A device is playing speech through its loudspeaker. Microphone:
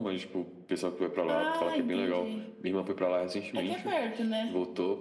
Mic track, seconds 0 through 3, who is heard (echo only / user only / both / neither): echo only